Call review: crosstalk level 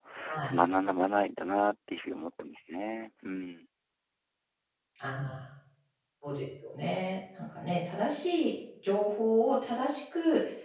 none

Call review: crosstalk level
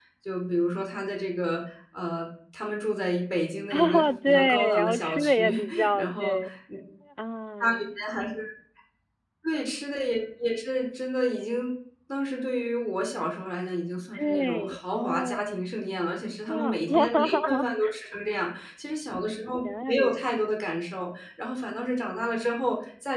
present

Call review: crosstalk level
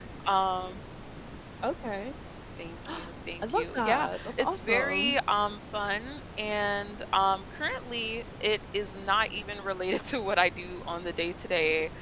present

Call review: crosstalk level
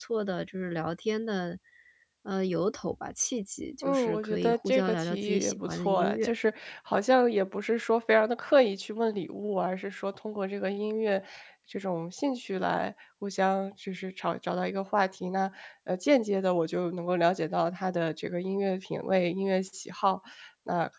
present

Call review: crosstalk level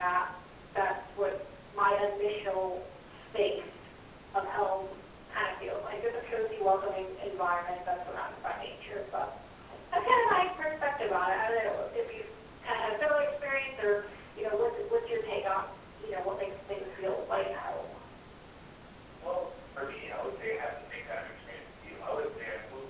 none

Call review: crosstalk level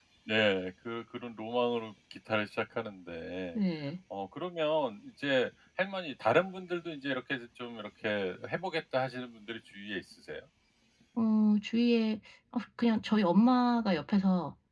none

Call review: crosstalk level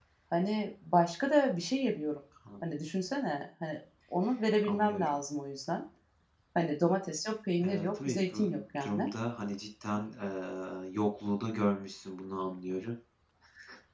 present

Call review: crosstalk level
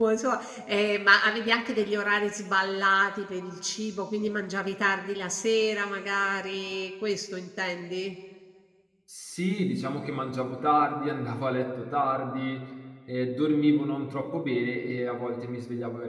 none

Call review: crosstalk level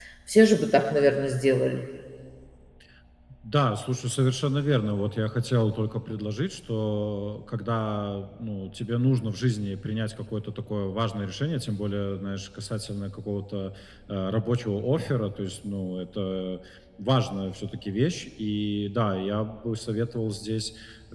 none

